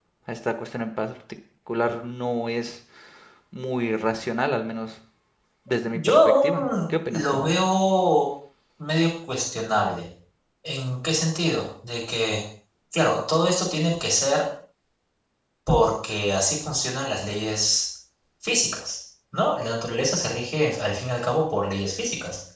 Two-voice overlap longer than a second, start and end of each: 5.7-7.4

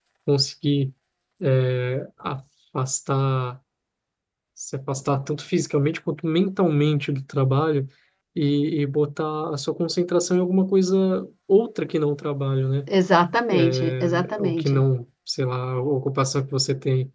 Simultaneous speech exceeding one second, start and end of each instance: 13.5-14.8

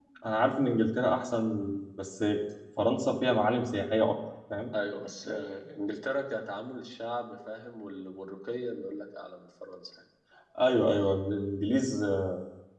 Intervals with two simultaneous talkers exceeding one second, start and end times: none

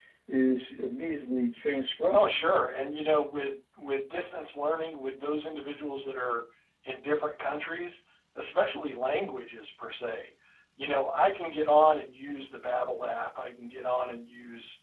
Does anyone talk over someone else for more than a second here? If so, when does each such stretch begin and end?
none

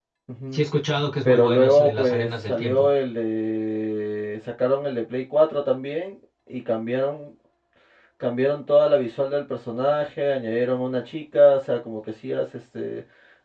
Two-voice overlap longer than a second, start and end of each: 1.2-2.9

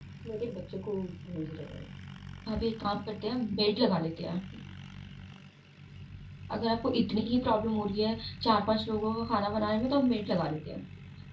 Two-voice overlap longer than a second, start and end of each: none

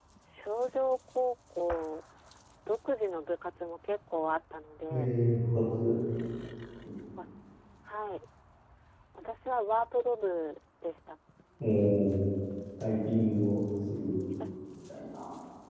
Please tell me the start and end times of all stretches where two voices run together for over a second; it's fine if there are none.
none

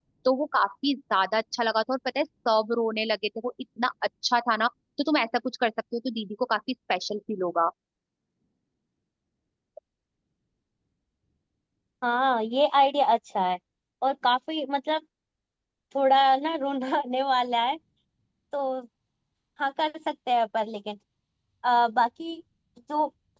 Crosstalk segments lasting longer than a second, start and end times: none

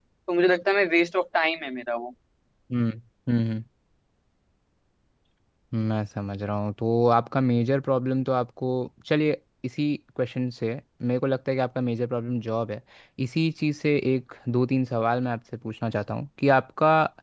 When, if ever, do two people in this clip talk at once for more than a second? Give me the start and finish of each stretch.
none

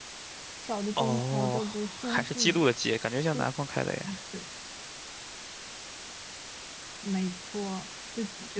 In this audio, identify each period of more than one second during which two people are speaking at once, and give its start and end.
1.0-2.6

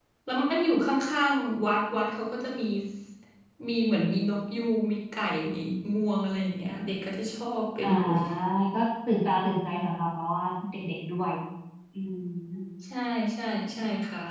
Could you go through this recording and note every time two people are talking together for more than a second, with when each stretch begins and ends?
none

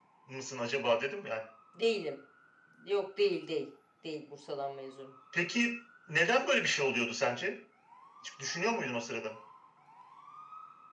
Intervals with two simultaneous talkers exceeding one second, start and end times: none

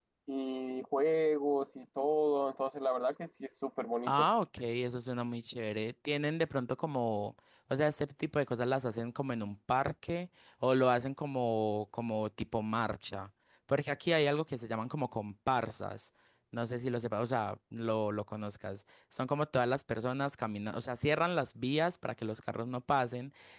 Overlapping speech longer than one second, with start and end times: none

